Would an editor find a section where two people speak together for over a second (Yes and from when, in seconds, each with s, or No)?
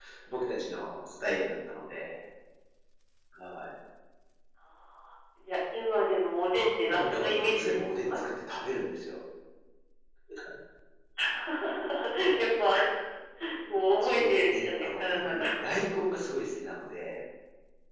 Yes, from 6.5 s